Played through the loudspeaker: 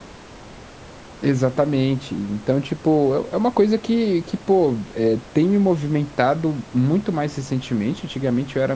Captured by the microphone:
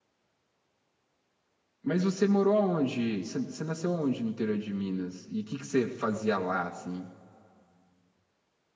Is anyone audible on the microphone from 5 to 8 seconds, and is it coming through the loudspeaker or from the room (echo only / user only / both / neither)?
user only